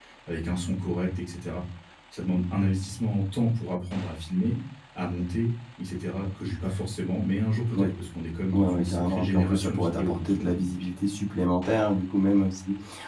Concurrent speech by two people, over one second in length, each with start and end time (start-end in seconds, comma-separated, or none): 8.5-10.6